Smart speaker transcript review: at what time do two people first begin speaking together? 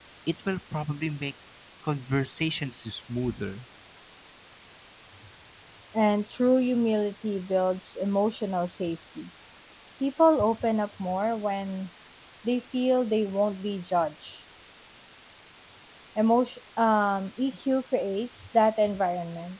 none

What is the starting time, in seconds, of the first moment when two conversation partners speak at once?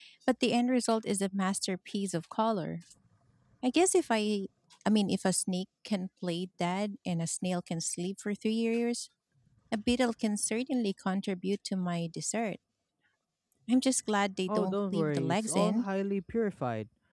14.5 s

